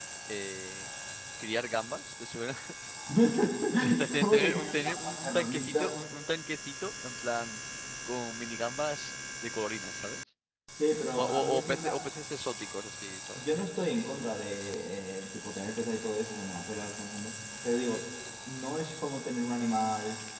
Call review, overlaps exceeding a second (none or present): present